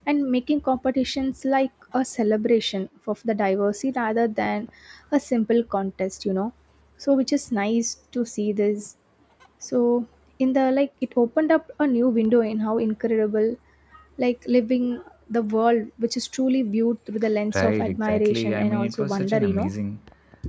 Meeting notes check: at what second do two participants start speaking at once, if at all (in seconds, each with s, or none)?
17.5 s